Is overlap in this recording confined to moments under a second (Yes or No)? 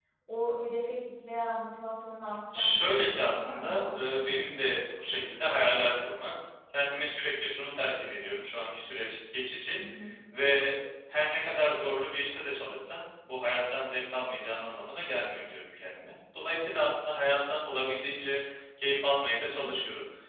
No